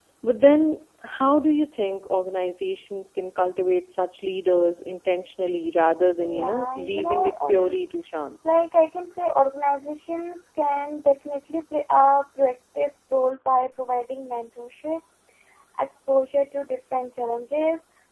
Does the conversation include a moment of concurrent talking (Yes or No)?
Yes